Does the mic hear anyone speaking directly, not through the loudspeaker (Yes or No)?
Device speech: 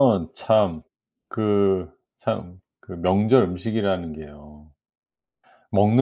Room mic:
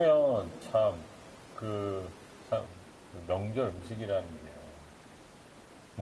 No